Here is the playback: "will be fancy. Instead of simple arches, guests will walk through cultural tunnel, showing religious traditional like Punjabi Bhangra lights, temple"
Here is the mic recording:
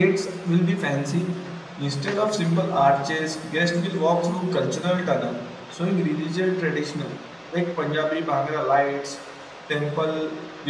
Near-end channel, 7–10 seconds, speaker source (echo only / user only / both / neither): echo only